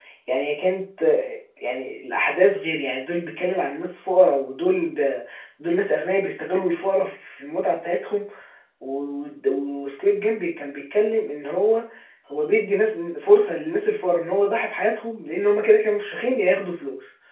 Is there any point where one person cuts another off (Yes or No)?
No